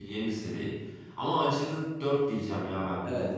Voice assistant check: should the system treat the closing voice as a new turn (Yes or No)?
Yes